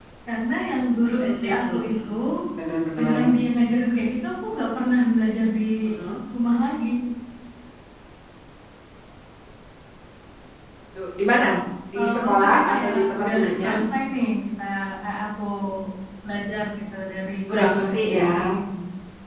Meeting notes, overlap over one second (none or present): present